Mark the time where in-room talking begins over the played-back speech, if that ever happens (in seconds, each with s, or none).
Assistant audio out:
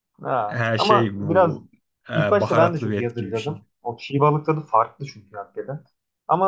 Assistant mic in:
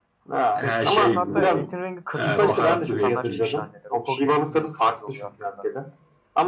0.5 s